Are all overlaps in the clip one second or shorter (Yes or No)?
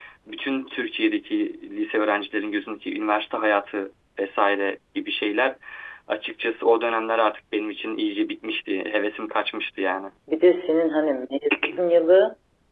Yes